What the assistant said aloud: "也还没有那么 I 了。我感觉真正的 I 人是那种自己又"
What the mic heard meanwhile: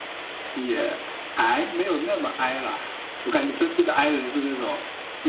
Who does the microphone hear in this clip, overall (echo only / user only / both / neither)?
echo only